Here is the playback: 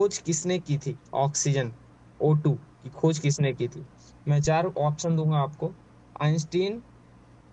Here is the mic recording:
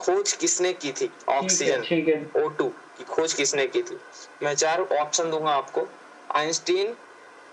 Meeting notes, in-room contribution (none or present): present